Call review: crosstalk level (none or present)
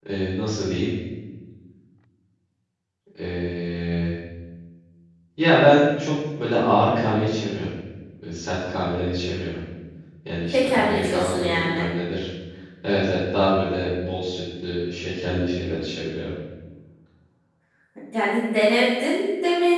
present